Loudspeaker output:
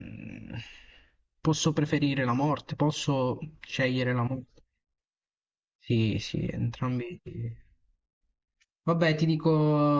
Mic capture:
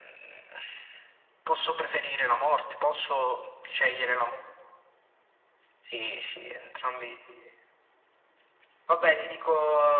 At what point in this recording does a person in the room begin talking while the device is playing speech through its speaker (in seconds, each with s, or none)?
none